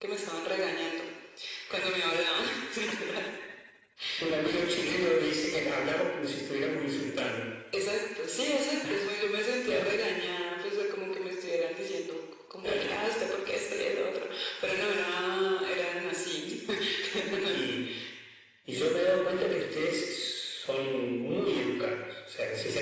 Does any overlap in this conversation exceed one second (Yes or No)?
No